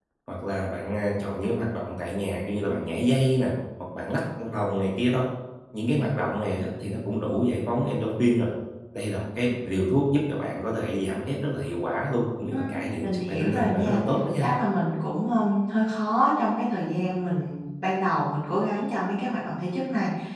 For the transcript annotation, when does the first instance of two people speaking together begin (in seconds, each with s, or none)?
12.5 s